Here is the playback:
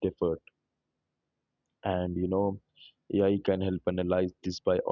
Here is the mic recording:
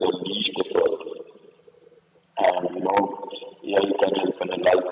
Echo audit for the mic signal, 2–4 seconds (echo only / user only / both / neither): echo only